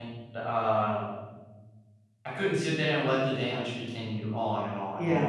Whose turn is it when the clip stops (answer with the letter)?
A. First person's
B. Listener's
B